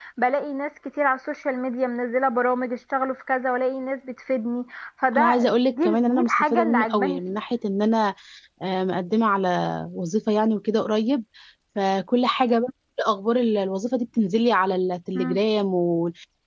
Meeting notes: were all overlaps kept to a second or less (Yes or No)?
No